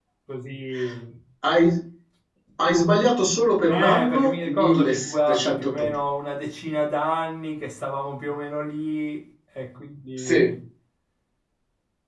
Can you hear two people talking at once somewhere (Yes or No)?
Yes